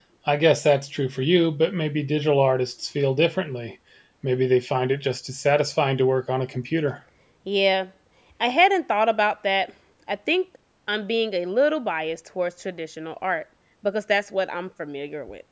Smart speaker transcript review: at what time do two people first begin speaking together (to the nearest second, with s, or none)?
none